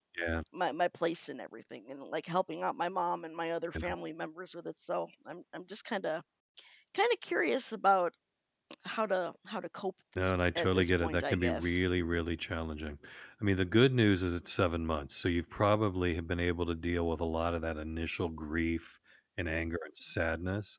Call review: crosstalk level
present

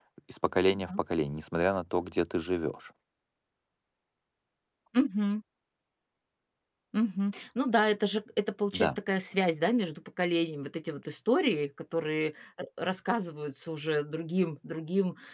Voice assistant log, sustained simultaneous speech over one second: none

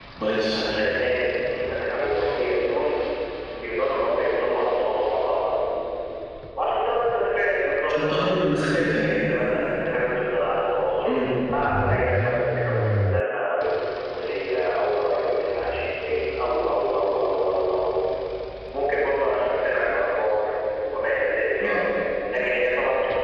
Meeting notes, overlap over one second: none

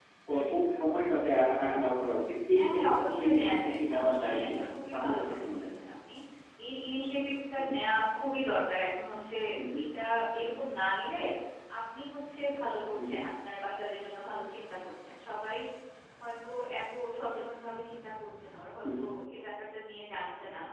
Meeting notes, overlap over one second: present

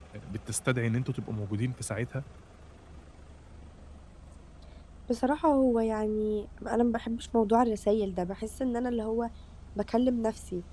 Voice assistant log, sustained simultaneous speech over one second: none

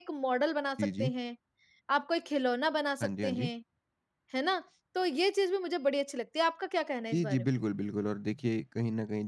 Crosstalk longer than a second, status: none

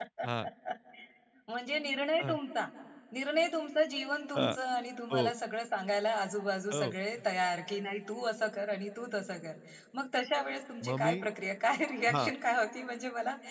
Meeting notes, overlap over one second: none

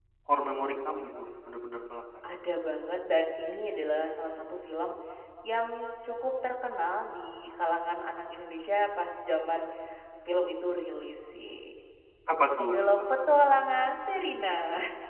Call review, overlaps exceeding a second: none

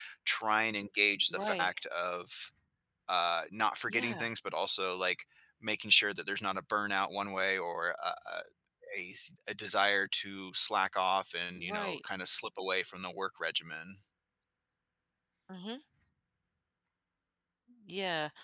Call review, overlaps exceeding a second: none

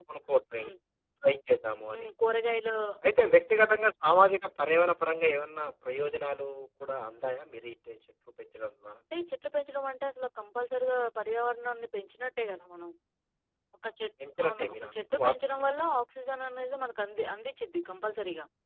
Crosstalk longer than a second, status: present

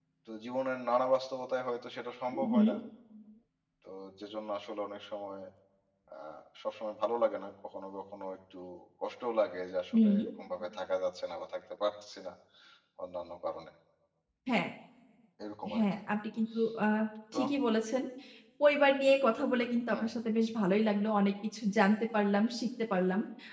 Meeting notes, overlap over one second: none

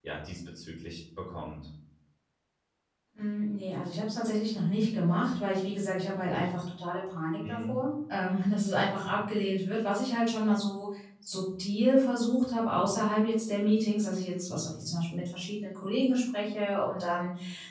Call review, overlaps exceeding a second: none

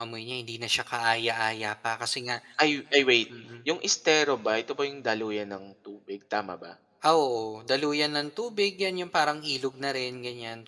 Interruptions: none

